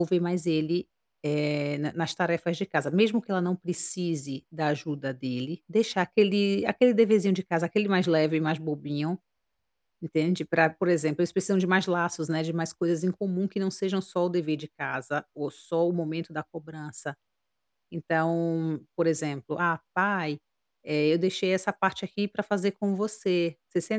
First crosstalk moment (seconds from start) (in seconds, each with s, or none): none